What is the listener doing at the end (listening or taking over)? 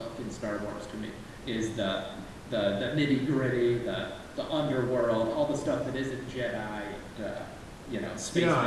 taking over